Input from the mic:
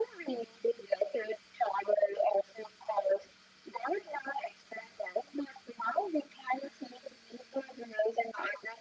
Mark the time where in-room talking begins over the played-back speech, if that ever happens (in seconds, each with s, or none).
none